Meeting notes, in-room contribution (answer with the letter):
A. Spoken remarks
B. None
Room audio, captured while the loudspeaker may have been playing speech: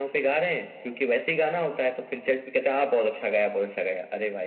B